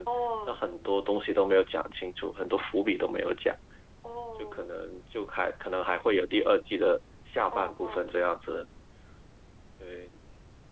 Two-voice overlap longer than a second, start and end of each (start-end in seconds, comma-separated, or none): none